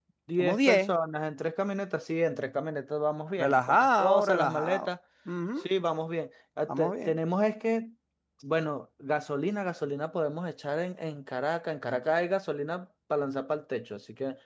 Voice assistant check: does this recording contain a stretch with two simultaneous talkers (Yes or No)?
Yes